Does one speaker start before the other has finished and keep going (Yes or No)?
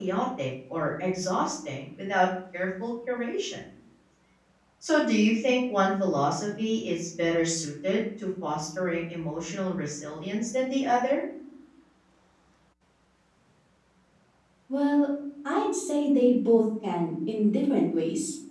No